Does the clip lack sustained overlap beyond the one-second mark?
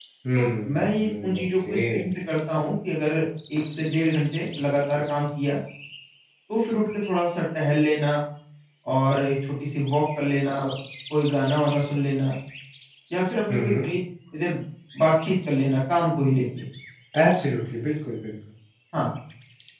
No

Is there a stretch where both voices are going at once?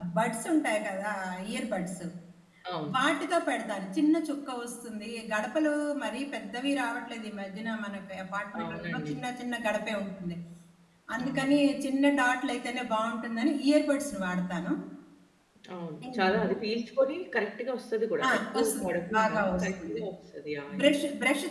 Yes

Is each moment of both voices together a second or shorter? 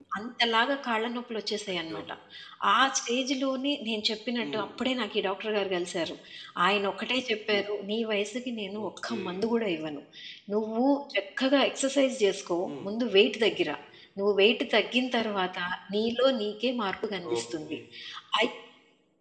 Yes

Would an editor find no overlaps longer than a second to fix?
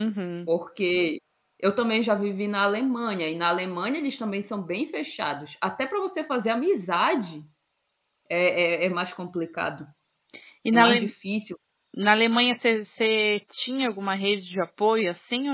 Yes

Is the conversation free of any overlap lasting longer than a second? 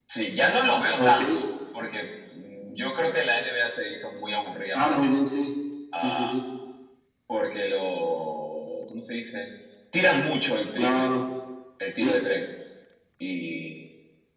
Yes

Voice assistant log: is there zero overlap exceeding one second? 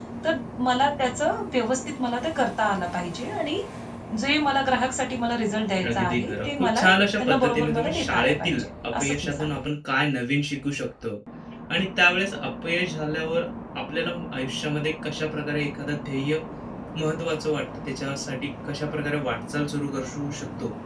No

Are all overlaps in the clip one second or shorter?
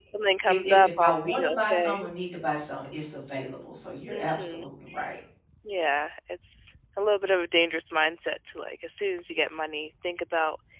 No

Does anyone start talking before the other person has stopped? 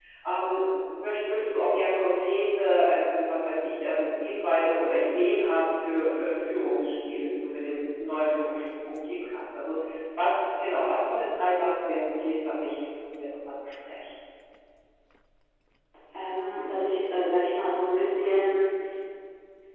No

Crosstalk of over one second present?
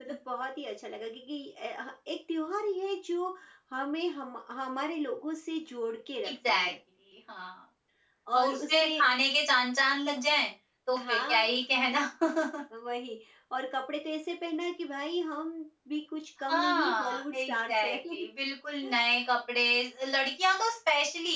Yes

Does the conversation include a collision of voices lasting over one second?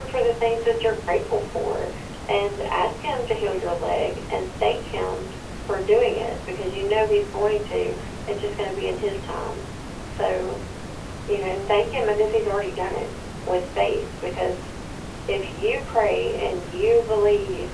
No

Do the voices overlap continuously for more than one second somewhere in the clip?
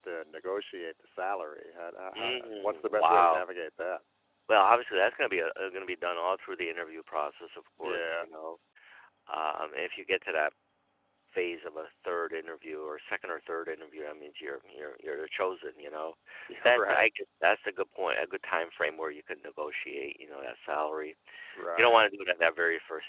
Yes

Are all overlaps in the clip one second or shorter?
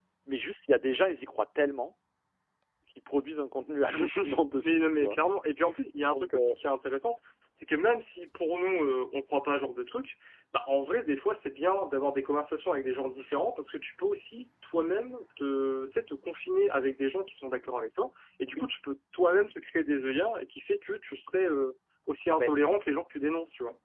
Yes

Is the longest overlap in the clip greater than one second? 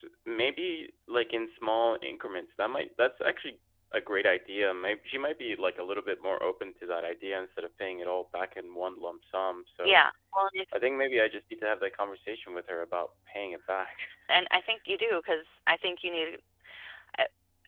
No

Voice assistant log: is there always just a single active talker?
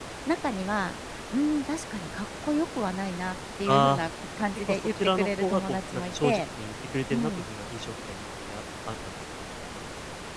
No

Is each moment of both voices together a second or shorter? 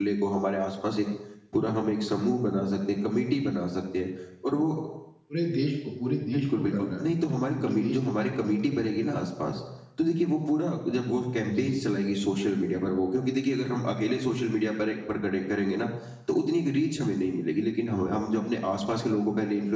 No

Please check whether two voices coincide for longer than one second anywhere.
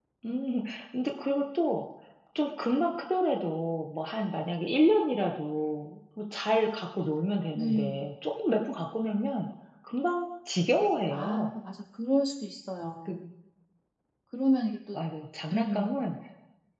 No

